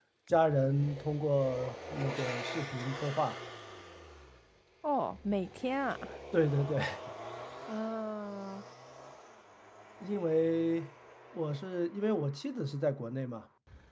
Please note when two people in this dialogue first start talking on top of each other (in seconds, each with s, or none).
none